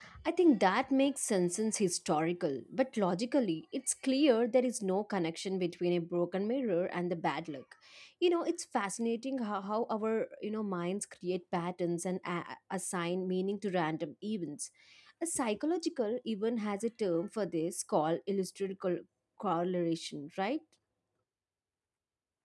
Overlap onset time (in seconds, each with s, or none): none